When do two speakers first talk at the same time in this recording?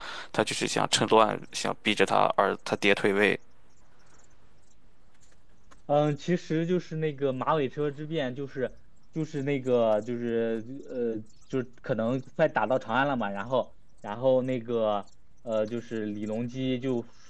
none

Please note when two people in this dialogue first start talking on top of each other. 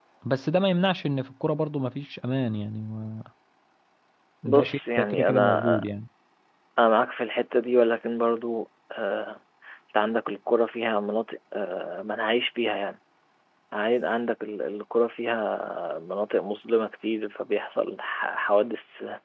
4.4 s

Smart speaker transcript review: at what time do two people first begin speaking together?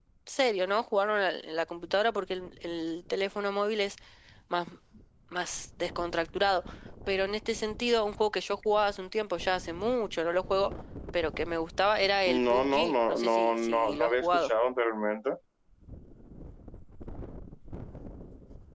12.3 s

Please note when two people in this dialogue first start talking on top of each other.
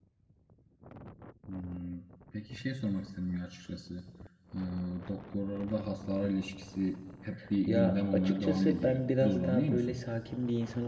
7.7 s

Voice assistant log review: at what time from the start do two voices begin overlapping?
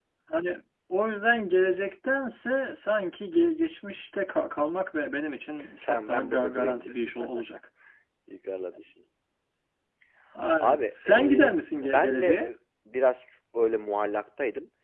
5.8 s

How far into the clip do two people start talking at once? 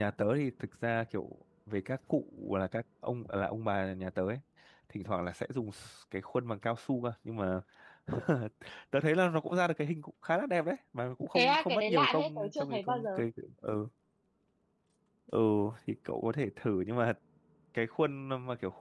11.3 s

